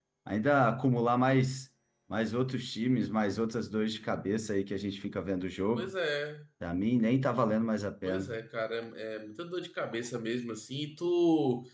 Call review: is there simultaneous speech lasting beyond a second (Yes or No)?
No